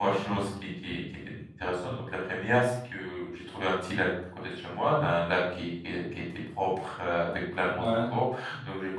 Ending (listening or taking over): listening